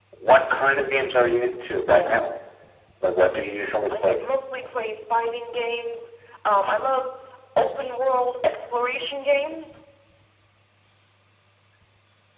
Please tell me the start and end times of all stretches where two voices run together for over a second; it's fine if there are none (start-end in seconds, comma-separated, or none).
none